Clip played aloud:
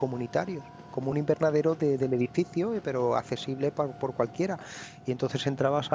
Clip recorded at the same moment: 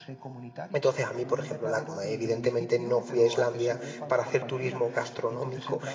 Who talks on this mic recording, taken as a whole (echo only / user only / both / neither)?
both